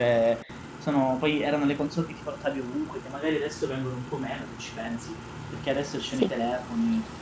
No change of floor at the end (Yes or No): Yes